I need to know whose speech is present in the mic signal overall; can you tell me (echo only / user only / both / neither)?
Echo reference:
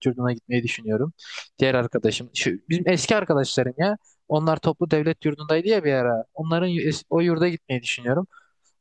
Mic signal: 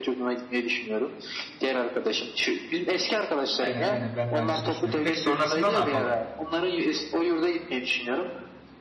both